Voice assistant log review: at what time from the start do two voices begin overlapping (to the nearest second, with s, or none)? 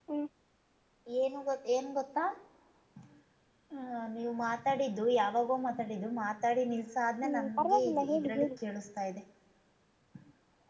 7 s